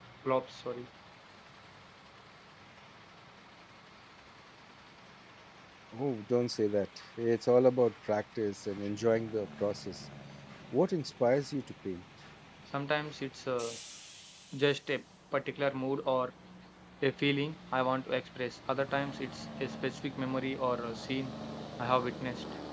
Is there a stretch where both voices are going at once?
No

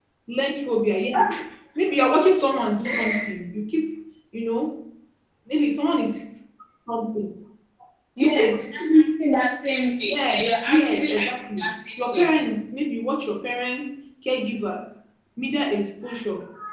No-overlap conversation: No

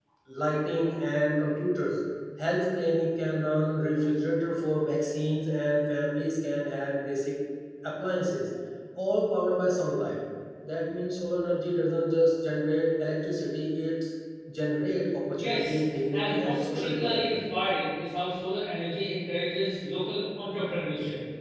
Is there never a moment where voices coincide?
No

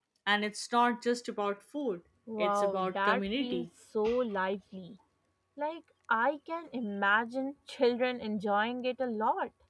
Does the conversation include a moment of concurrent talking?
Yes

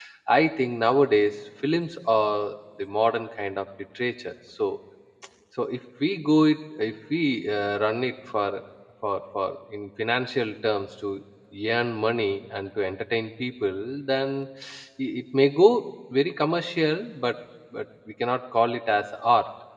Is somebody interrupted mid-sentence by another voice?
No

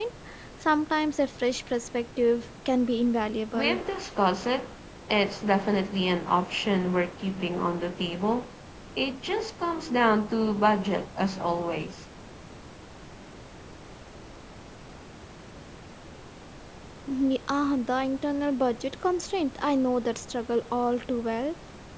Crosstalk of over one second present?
No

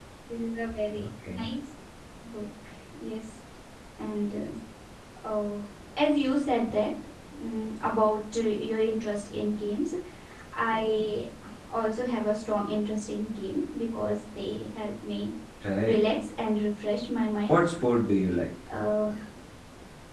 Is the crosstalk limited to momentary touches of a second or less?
Yes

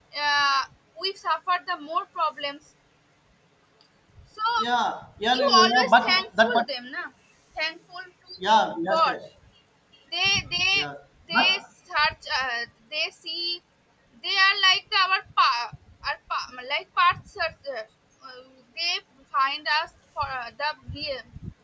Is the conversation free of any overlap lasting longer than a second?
No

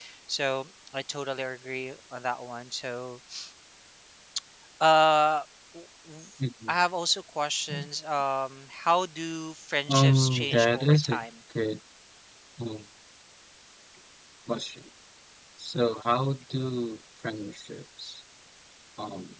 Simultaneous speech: Yes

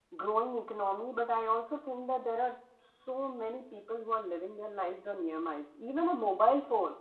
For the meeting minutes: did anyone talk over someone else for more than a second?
No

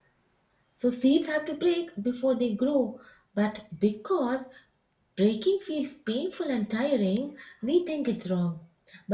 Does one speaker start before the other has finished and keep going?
No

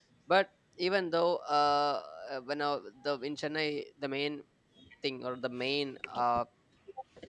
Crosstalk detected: No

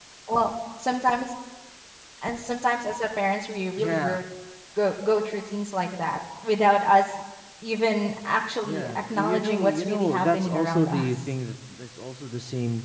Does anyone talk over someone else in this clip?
Yes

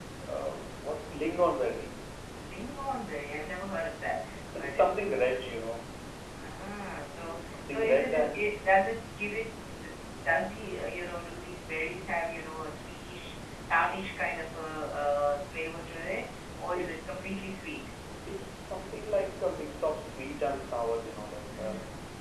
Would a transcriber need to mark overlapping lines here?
Yes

